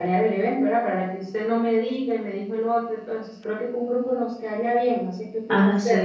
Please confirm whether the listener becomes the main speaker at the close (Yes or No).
Yes